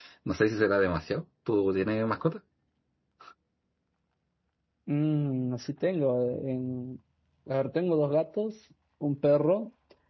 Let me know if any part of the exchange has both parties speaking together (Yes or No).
No